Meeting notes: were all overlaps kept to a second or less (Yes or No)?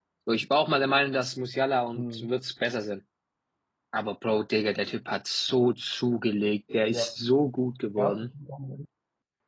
Yes